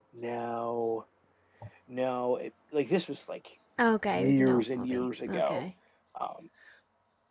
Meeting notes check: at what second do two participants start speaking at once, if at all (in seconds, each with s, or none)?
4.1 s